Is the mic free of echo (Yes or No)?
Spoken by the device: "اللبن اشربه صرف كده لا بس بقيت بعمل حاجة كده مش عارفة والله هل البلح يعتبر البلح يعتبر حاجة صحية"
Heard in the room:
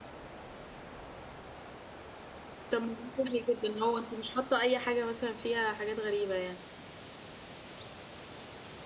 Yes